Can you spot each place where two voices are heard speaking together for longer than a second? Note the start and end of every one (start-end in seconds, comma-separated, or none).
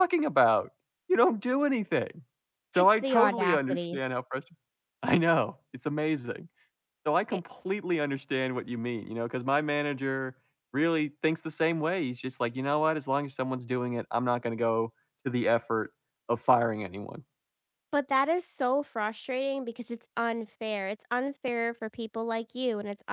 2.8-4.0